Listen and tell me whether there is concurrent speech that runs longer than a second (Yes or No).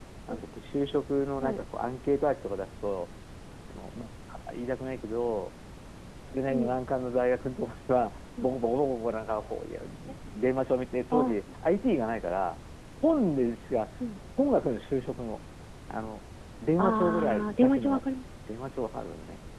Yes